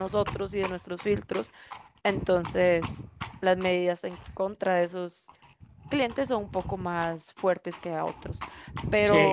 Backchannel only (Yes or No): No